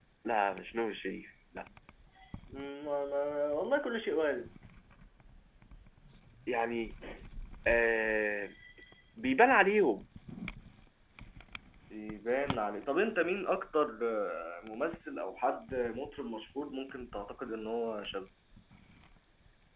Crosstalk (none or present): none